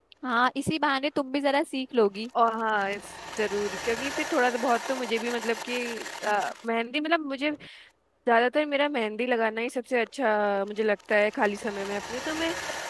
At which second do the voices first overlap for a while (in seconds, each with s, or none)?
none